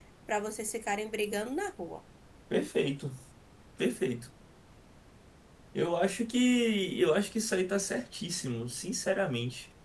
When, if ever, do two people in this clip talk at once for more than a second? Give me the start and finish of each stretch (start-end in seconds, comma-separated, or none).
none